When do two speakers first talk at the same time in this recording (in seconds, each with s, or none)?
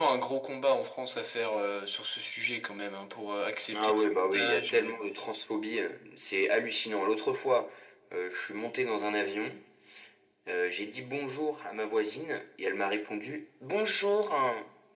3.7 s